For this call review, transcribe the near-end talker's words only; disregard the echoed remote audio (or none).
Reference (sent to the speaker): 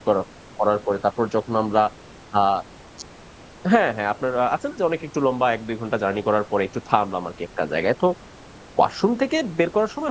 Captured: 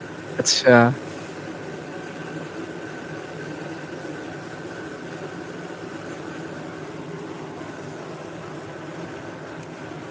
আচ্ছা।